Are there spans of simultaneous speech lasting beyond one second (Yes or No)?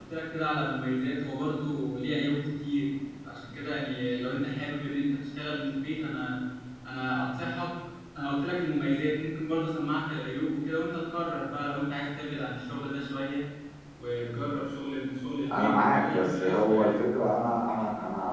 Yes